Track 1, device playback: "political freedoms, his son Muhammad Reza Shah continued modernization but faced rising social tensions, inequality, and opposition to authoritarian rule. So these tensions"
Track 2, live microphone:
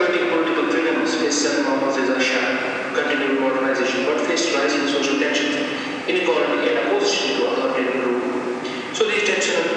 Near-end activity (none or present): none